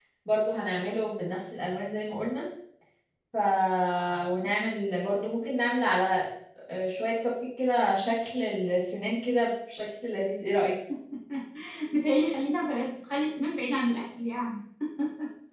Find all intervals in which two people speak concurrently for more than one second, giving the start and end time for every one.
none

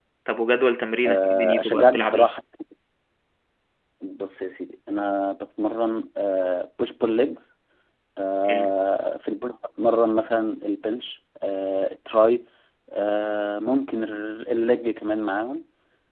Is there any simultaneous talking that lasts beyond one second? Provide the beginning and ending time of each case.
1.0-2.3

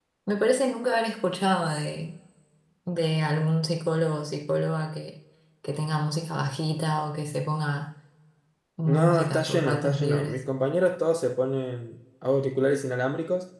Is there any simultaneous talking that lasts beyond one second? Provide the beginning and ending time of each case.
8.9-10.4

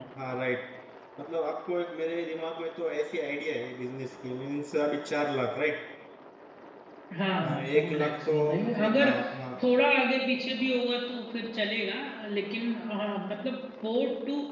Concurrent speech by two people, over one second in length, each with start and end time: 7.4-9.1

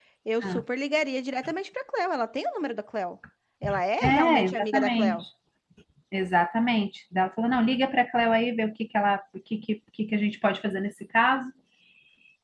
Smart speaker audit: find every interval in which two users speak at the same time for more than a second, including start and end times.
4.0-5.2

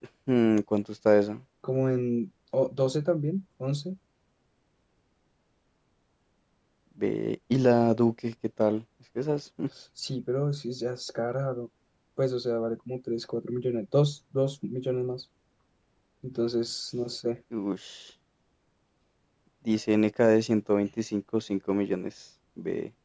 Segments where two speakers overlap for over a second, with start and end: none

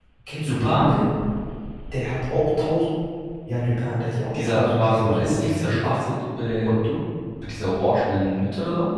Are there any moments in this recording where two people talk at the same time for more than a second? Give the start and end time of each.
4.3-6.0

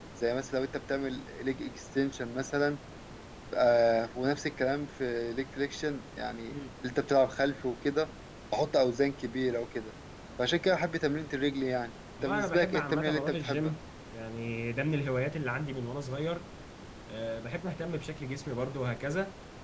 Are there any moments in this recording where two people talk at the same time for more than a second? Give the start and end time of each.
12.2-13.7

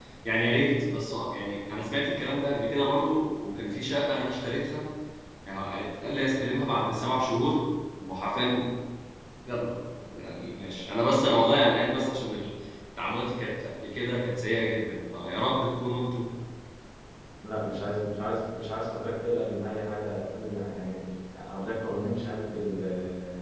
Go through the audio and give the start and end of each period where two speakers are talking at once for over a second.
none

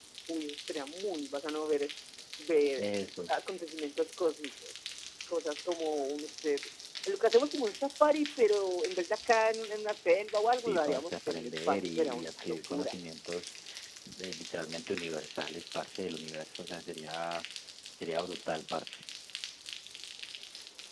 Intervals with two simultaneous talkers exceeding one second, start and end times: 10.7-13.0

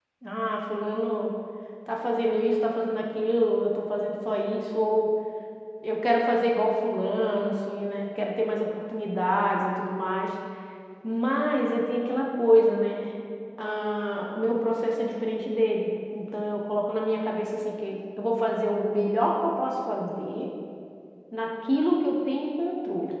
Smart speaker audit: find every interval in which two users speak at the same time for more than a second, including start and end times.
none

